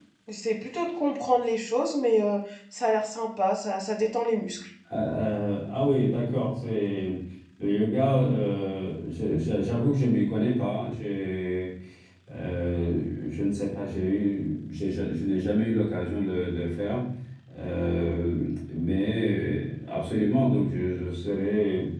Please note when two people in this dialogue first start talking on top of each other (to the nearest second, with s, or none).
none